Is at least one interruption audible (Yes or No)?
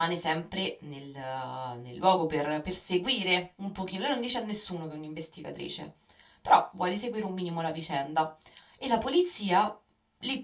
No